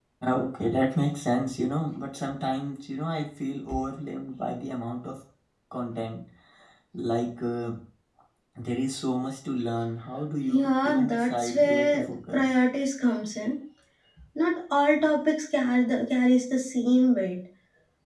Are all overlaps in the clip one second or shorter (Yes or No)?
No